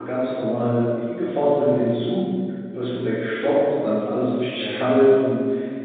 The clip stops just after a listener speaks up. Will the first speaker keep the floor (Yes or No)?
Yes